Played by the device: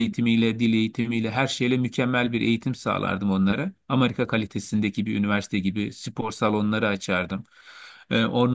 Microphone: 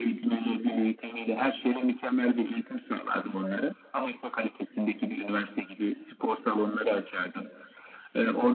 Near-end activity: none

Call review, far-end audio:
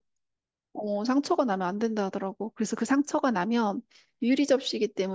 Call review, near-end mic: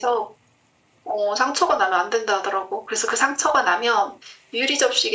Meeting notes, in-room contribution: none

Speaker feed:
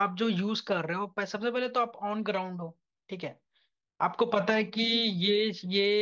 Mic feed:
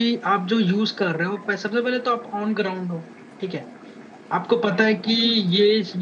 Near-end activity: none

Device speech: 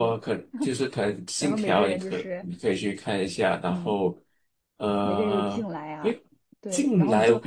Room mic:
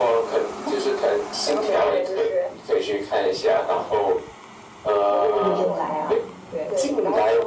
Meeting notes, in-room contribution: present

